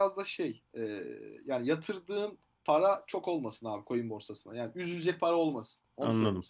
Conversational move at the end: taking over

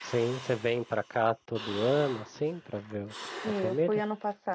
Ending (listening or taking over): taking over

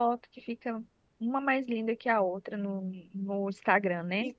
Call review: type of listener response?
taking over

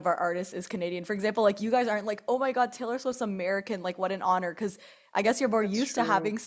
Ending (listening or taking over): listening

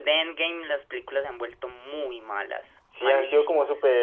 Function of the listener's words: taking over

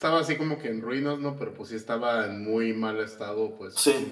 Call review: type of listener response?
listening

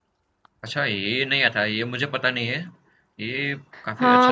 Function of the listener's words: taking over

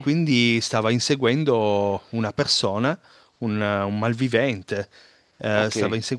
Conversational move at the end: listening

